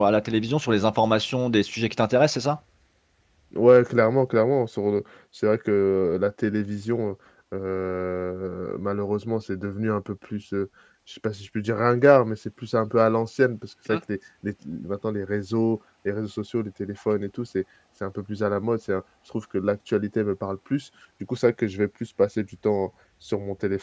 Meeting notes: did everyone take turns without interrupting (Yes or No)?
Yes